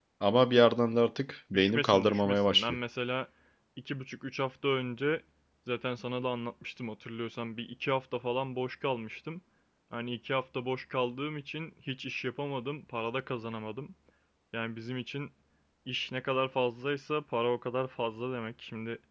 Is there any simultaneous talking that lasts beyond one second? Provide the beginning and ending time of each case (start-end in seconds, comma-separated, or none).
1.5-2.8